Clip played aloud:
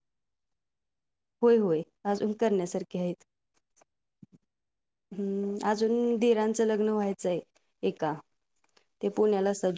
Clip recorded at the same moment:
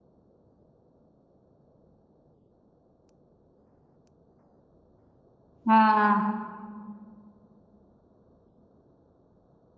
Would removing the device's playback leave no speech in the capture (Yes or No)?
No